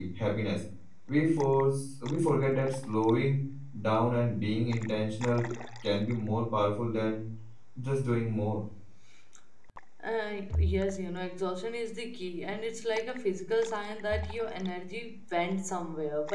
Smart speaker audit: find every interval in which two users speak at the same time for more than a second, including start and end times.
none

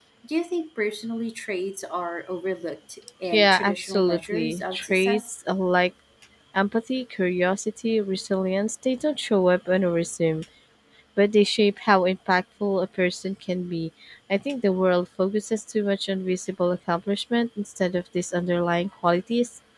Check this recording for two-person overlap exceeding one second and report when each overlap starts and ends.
3.3-5.3

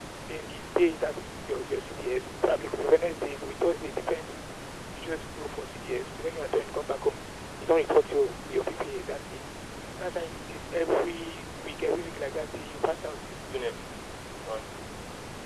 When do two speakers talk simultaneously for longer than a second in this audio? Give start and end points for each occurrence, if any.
none

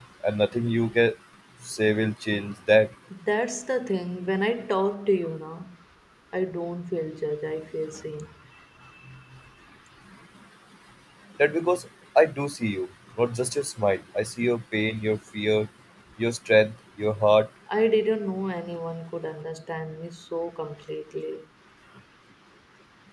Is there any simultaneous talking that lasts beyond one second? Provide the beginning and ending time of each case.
none

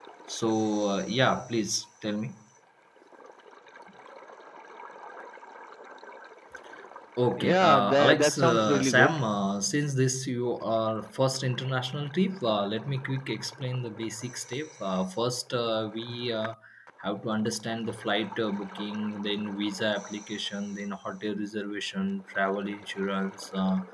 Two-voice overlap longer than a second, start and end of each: 7.4-9.2

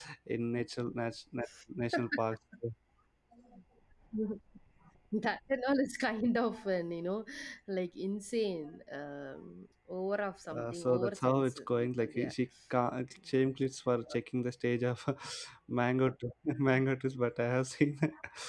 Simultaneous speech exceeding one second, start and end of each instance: 10.6-12.3

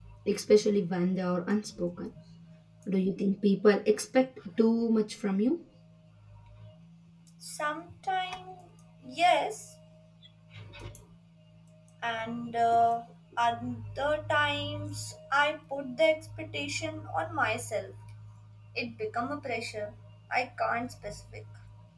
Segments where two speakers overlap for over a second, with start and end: none

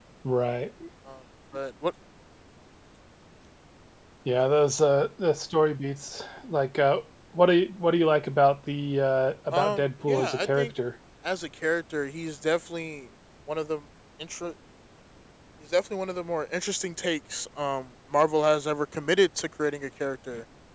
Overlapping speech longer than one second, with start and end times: 9.5-10.7

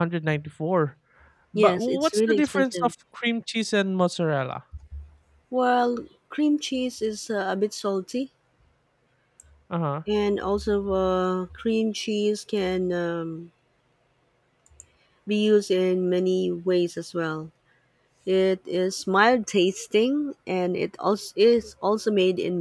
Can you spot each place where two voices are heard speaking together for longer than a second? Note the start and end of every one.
1.6-2.9

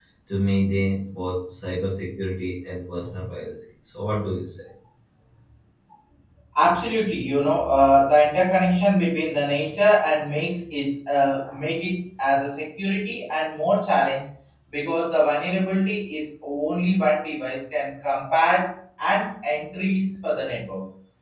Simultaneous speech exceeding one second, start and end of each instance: none

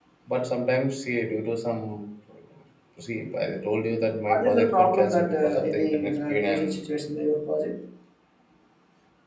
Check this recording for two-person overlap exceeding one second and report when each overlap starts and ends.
4.3-6.8

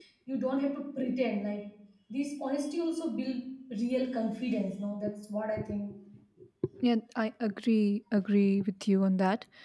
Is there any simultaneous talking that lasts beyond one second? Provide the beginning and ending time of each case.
none

